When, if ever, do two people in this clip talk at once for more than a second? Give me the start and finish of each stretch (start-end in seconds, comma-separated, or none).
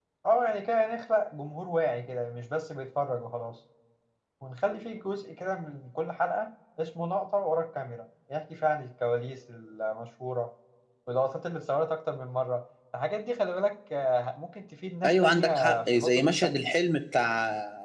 15.0-16.7